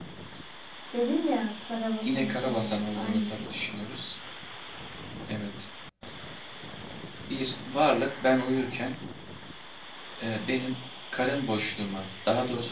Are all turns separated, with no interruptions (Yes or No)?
No